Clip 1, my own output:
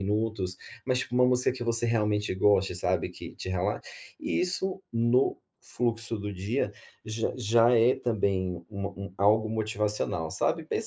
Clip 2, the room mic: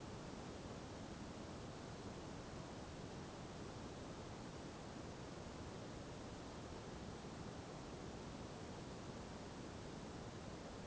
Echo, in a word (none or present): none